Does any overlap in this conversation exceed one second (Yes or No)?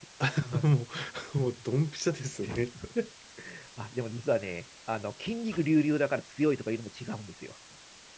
No